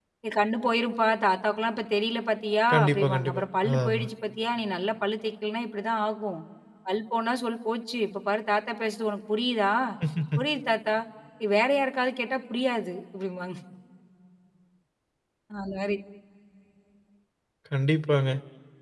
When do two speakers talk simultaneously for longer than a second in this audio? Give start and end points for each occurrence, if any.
2.7-4.1

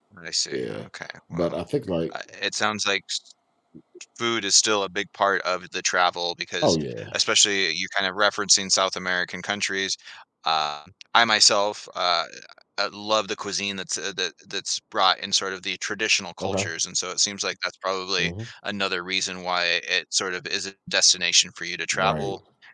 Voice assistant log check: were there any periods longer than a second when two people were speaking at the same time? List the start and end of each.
none

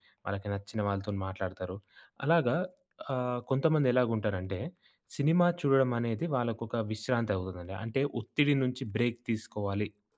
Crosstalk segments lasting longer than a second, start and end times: none

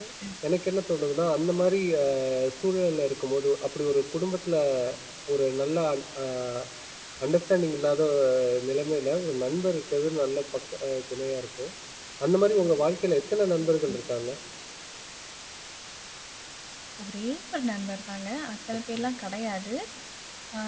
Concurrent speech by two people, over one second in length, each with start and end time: none

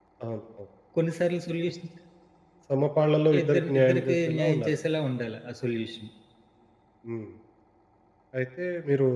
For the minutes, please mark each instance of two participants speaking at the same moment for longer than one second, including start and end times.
3.4-4.8

